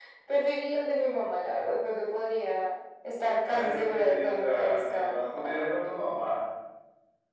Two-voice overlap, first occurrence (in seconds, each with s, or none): 3.4 s